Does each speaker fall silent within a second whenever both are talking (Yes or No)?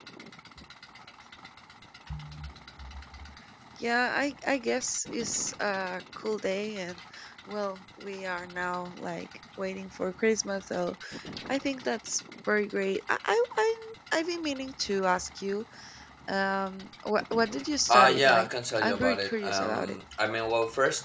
No